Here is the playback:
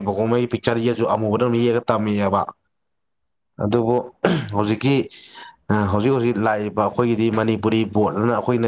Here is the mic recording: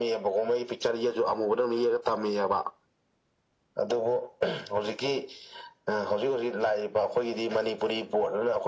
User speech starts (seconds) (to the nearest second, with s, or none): none